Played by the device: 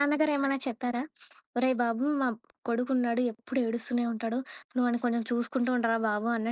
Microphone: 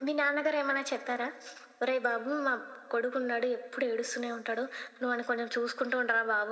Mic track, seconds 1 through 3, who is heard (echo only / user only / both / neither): echo only